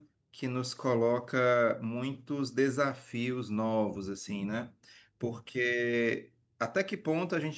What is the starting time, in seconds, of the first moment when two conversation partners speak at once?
none

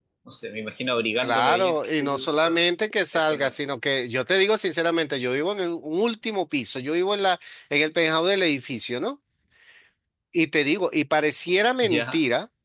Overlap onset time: 1 s

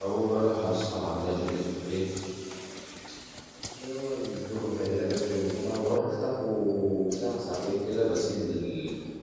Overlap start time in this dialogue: none

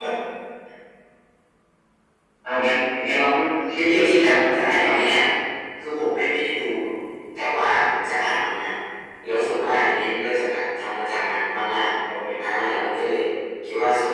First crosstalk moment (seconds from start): 4 s

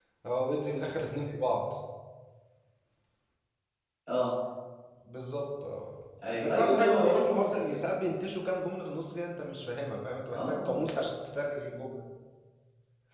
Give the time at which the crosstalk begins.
6 s

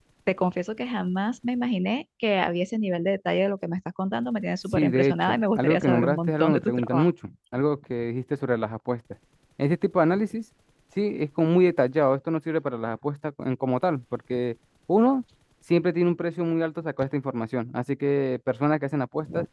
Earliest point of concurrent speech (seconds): 5 s

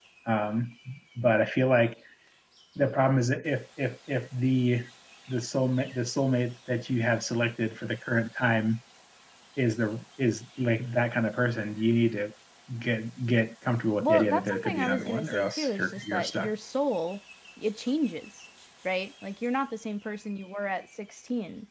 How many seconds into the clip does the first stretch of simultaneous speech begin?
14 s

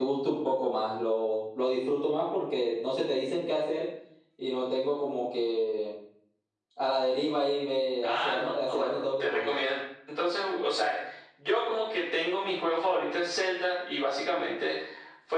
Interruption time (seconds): 8 s

